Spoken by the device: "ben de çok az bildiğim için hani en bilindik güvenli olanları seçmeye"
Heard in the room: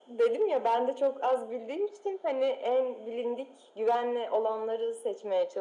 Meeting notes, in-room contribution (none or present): none